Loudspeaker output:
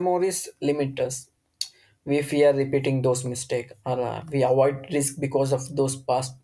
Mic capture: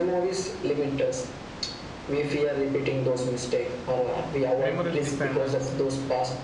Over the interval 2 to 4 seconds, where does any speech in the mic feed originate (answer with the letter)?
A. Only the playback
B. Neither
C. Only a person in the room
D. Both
A